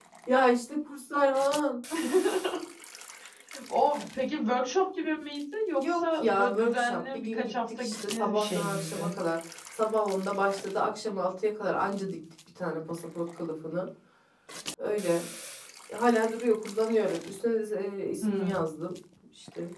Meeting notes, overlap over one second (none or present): present